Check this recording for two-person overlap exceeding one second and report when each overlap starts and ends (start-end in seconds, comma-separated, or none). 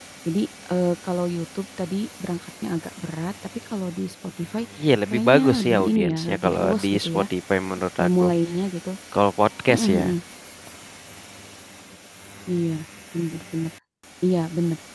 5.1-7.2